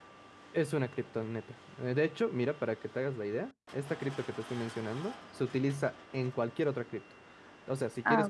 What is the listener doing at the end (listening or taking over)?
listening